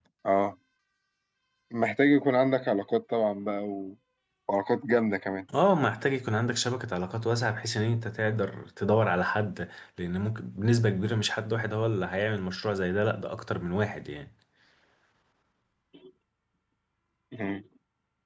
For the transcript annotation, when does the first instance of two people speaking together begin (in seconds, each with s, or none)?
none